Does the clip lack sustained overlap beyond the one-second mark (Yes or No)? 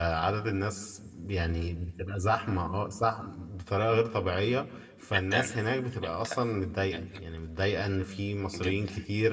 Yes